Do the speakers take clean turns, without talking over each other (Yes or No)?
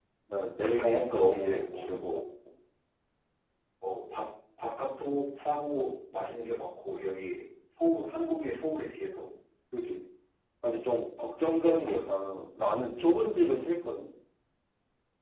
No